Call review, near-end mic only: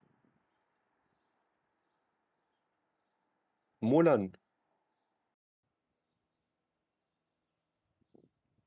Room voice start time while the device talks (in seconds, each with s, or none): 3.8 s